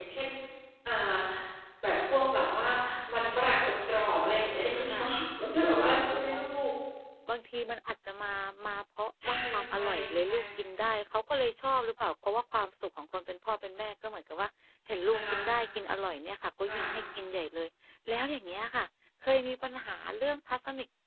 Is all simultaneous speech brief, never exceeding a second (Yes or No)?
Yes